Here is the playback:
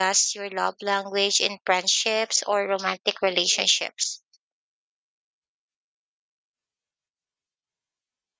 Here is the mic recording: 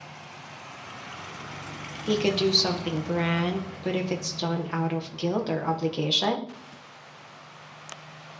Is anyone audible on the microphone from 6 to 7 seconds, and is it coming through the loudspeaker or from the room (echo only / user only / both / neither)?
user only